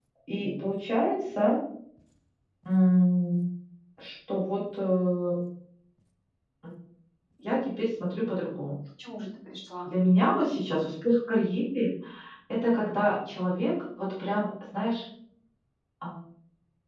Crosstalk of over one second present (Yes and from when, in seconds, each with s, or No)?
No